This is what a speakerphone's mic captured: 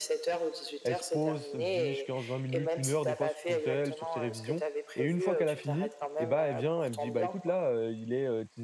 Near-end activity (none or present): present